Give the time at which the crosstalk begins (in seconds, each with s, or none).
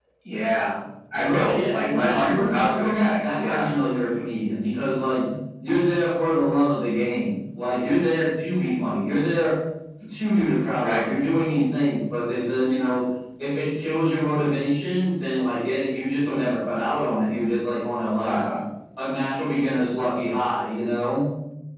1.1 s